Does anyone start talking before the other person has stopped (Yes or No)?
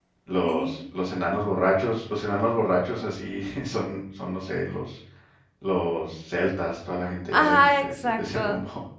Yes